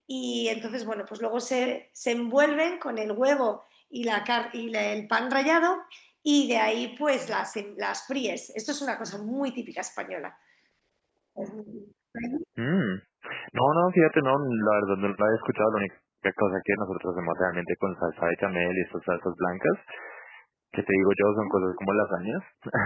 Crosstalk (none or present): none